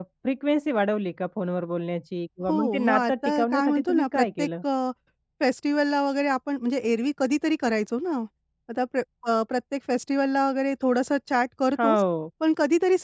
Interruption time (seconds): 2.4 s

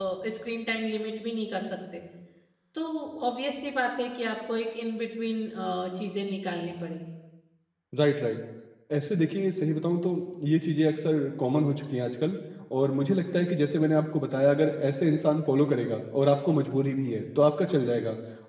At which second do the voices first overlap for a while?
none

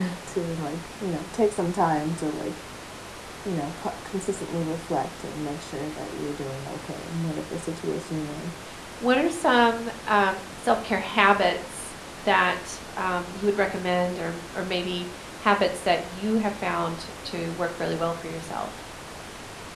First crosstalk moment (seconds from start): none

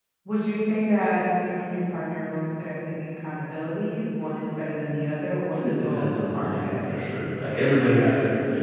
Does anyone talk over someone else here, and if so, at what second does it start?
5.5 s

